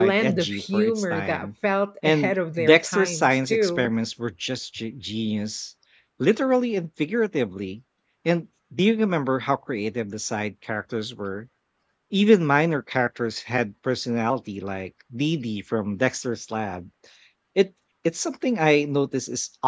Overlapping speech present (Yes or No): Yes